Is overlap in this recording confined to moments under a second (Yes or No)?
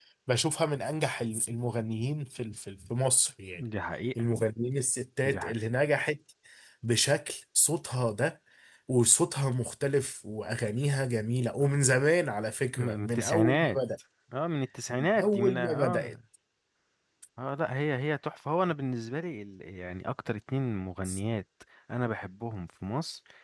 No